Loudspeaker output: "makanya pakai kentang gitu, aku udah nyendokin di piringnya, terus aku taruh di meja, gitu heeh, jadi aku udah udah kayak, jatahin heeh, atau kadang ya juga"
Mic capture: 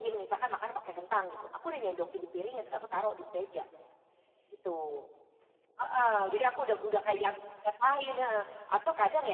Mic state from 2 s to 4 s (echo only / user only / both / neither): echo only